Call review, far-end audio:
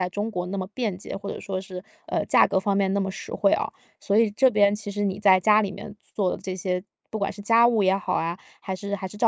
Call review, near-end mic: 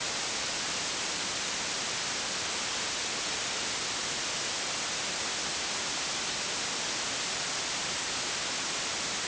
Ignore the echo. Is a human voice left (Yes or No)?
No